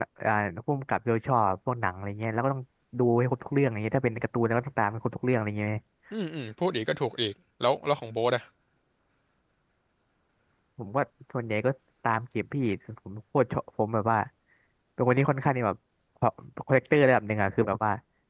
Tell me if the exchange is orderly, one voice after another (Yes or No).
Yes